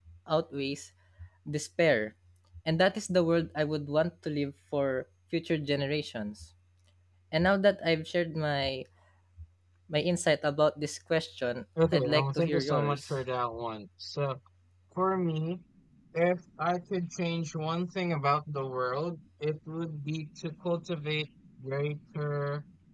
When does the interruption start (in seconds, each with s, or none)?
11.8 s